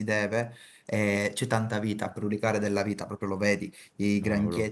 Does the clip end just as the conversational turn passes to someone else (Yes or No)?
No